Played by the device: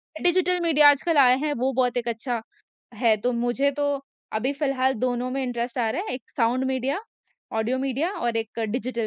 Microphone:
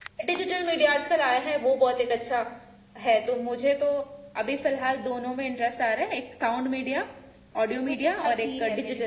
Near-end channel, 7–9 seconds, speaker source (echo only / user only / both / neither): both